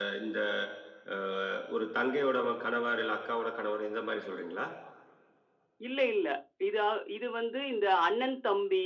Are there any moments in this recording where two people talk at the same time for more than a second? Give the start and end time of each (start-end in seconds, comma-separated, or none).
none